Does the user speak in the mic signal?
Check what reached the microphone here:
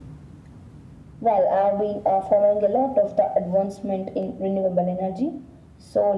No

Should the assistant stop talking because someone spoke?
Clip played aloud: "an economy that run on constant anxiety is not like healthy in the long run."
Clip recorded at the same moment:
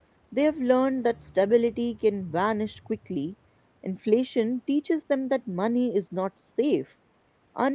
Yes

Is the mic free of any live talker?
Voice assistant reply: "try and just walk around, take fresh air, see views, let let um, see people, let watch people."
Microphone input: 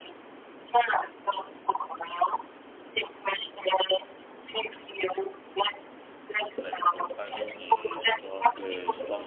No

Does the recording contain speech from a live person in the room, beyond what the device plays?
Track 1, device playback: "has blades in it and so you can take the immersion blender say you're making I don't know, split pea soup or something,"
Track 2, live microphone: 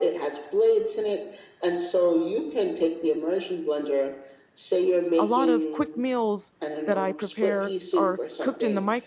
Yes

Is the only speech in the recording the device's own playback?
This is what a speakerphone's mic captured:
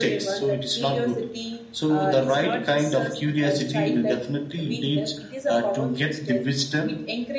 Yes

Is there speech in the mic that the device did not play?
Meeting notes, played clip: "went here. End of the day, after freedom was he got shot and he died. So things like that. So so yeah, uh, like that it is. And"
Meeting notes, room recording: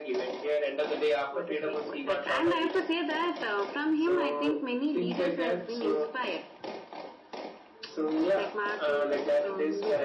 Yes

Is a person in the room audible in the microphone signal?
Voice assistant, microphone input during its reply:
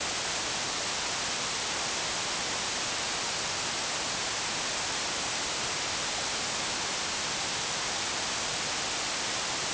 No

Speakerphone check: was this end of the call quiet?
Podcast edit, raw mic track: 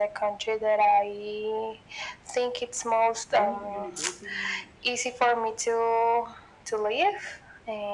No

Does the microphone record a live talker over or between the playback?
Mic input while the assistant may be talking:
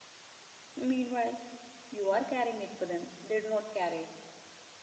Yes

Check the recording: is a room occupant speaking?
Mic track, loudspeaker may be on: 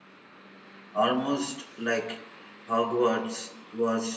Yes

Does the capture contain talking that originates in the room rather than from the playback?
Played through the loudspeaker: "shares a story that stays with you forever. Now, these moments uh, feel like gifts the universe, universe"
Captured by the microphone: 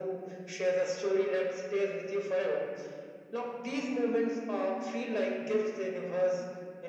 No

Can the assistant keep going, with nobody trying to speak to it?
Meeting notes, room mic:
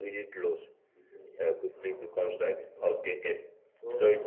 No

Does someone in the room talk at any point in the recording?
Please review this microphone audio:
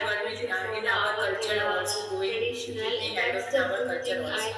Yes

